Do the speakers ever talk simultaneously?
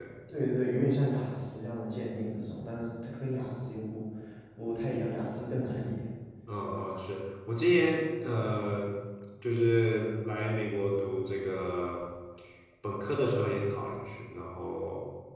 No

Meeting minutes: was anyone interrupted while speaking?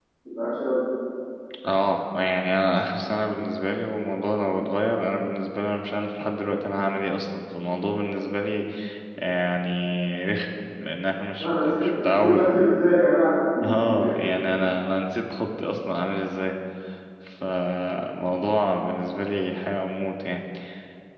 Yes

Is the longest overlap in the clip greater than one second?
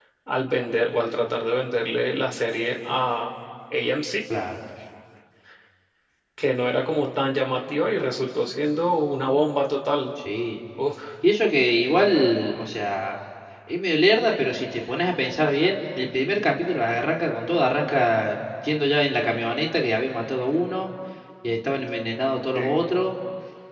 No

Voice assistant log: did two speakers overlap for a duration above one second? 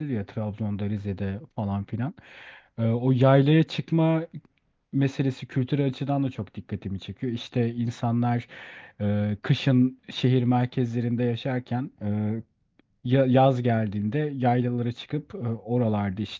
No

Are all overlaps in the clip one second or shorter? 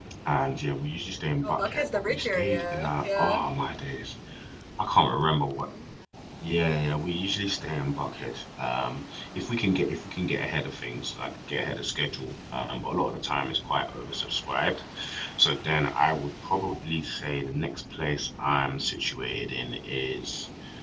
No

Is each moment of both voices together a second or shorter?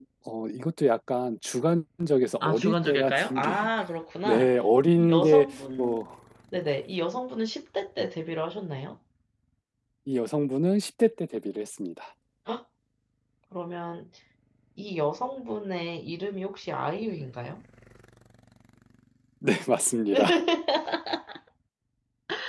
No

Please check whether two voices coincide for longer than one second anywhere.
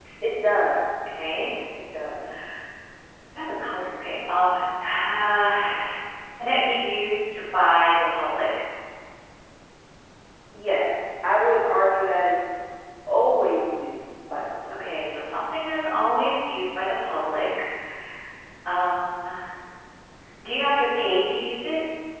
No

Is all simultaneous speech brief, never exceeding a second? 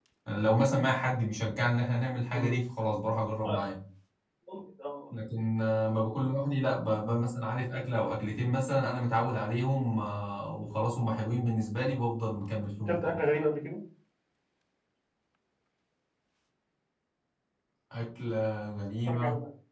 Yes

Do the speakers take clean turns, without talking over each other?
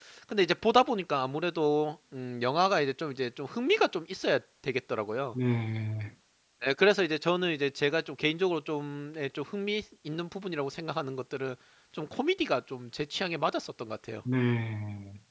Yes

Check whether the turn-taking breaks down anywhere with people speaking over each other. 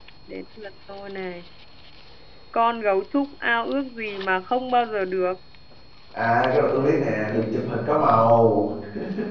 No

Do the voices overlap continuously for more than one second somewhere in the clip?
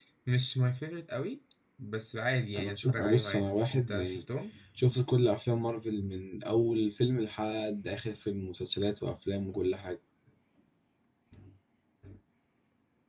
Yes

